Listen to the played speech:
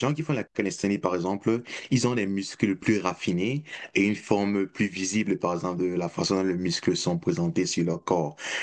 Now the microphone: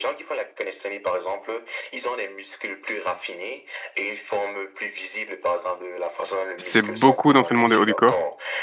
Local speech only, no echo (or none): c'est beaucoup d'entraînement du haut du corps